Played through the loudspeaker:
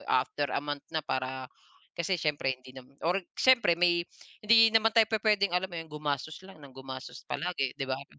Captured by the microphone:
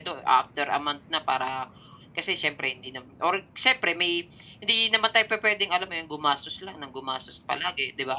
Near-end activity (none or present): none